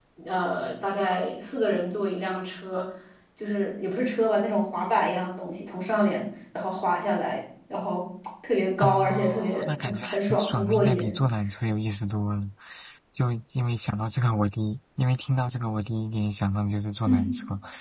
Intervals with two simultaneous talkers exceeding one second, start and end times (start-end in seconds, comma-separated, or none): 8.8-11.2